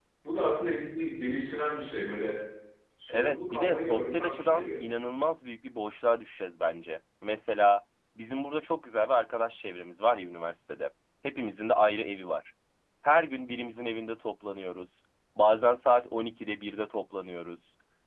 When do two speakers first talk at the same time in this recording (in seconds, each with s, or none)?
3.1 s